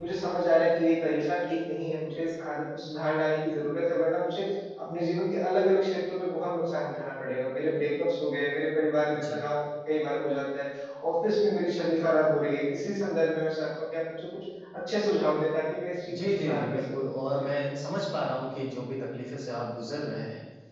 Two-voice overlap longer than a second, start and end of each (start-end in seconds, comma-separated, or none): 16.1-17.5